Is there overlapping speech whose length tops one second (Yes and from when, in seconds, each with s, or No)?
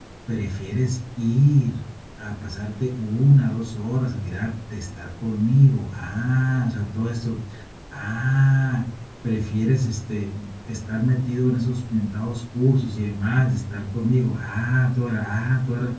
No